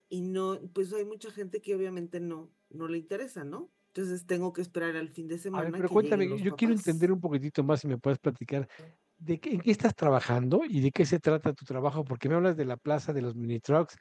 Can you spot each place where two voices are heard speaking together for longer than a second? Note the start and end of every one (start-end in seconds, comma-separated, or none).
5.5-7.0